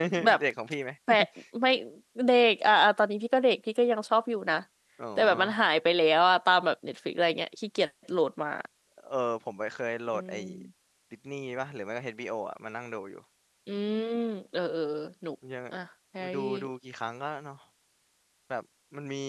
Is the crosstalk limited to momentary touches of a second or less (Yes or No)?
Yes